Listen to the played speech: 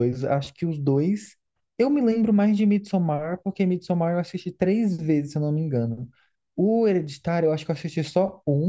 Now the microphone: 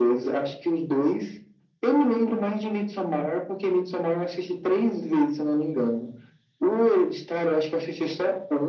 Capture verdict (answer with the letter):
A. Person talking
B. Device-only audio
B